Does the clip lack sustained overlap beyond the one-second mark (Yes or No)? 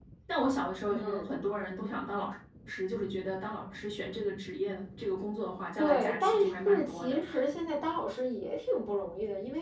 No